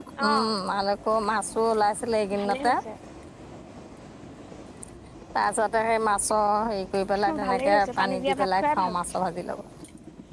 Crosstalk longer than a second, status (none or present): present